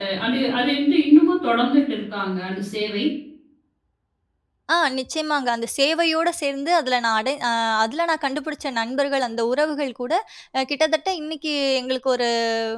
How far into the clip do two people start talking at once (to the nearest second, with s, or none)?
none